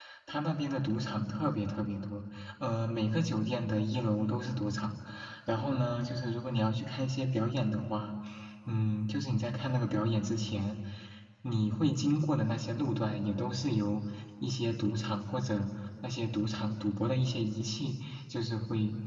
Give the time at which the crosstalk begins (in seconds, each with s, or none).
none